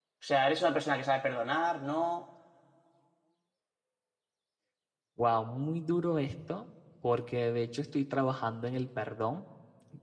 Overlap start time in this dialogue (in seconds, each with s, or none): none